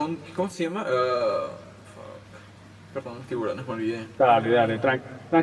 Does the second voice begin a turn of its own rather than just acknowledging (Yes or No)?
Yes